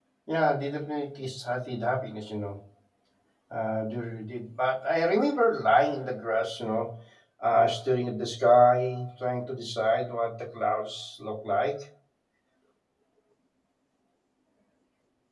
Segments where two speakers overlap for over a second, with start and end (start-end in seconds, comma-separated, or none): none